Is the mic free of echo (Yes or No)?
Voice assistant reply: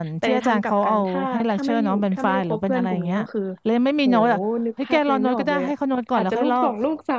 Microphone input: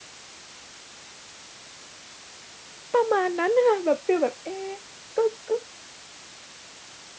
Yes